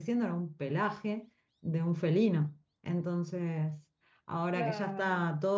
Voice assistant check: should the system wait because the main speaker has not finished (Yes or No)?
Yes